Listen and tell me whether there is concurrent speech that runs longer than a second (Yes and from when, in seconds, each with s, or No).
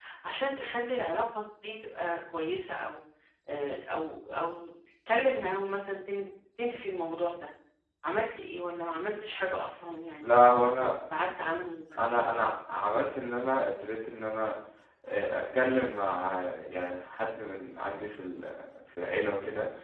No